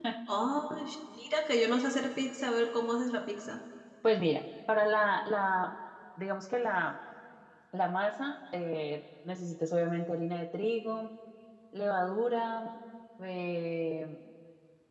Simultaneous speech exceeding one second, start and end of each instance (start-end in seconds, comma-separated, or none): none